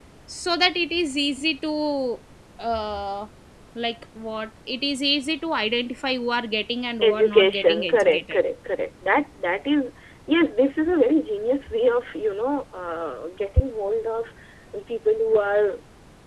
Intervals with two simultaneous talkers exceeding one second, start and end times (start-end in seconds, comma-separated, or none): 7.0-8.4